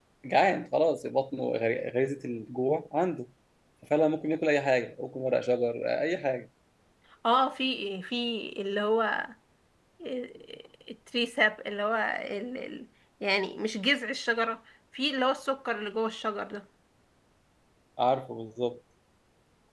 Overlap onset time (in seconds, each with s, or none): none